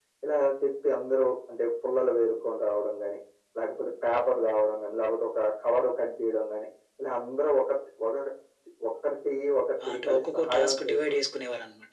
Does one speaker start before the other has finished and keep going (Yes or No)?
Yes